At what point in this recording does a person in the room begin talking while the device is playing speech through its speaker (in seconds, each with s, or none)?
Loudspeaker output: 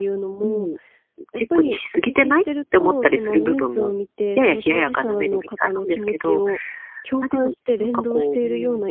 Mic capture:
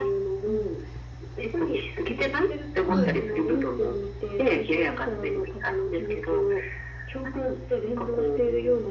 2.8 s